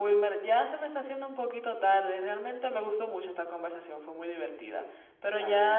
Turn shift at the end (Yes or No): No